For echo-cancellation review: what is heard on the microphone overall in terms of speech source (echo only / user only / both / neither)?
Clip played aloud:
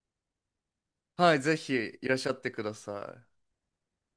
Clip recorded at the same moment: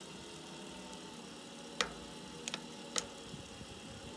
neither